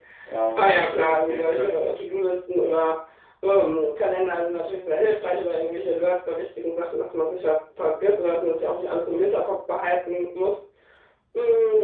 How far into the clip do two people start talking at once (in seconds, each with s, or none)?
0.6 s